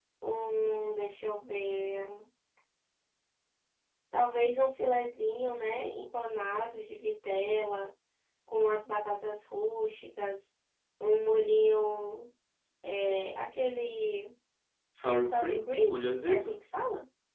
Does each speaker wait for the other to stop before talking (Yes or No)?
No